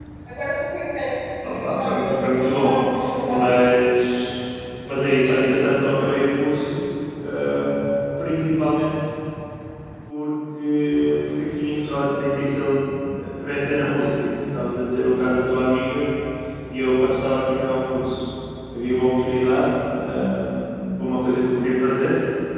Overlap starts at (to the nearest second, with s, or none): 1 s